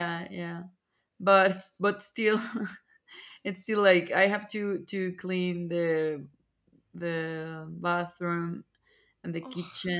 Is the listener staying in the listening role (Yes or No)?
Yes